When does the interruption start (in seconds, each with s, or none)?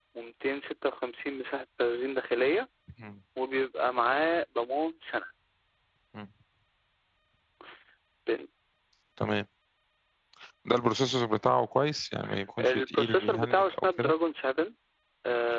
12.6 s